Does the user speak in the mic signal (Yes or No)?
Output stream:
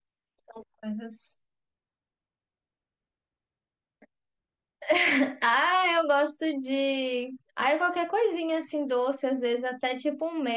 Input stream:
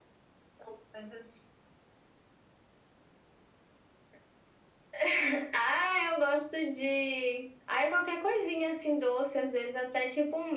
No